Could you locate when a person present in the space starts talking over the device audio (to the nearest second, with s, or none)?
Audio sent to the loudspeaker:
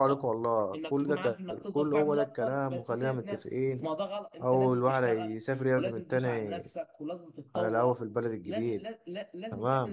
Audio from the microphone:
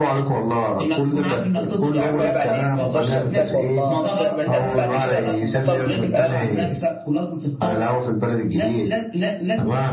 2 s